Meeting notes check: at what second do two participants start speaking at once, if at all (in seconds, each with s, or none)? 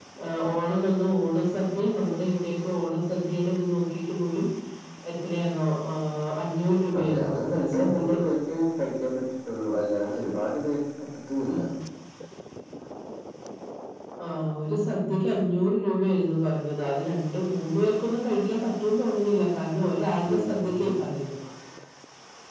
7.0 s